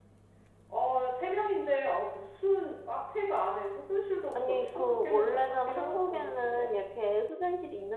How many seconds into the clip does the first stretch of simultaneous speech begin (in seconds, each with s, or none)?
4.3 s